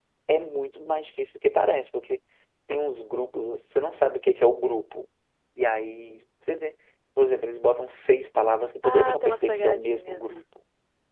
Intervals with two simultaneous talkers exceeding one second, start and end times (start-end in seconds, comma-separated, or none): 8.8-10.2